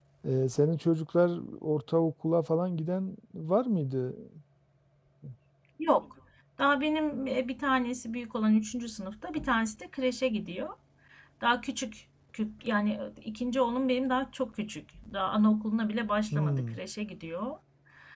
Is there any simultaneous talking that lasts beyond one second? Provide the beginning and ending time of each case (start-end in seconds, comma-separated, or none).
none